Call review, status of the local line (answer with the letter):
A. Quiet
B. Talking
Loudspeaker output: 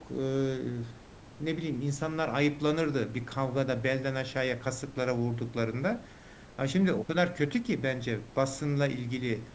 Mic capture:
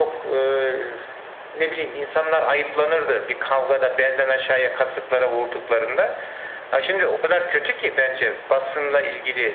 A